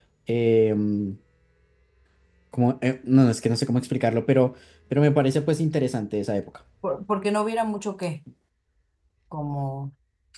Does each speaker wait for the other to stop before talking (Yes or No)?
Yes